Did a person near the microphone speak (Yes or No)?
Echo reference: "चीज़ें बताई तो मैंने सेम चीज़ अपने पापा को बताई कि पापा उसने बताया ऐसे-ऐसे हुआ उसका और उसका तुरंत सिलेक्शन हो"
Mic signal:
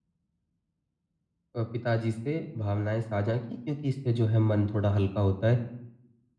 Yes